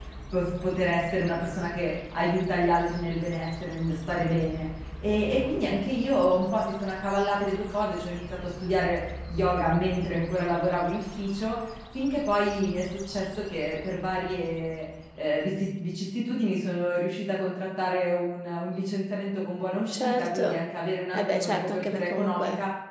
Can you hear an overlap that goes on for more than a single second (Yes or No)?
Yes